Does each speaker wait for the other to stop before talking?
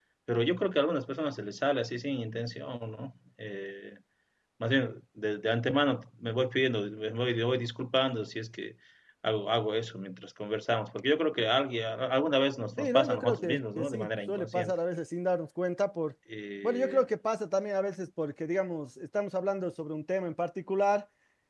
No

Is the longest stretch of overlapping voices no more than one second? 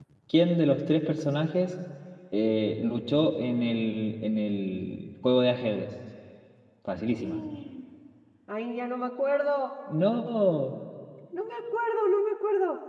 Yes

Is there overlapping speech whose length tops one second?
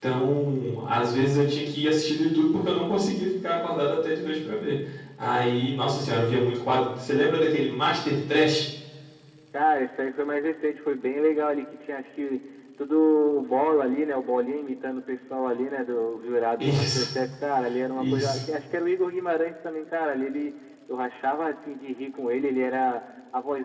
No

